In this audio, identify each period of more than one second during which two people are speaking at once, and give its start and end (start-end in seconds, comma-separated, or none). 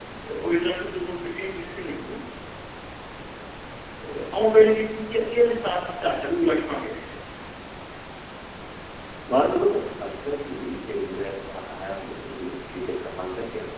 none